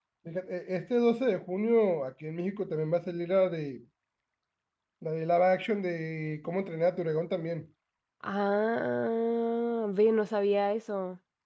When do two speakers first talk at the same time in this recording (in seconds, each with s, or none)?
none